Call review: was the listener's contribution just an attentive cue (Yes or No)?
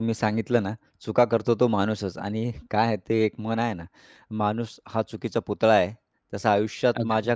Yes